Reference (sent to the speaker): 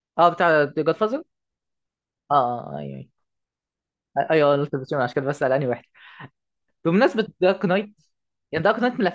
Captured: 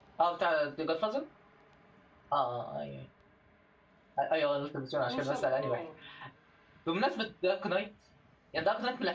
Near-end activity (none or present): present